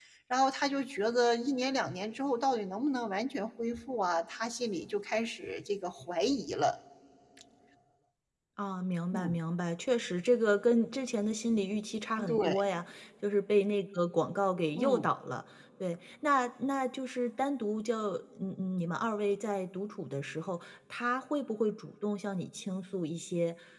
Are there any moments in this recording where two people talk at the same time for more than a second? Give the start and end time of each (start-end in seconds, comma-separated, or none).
none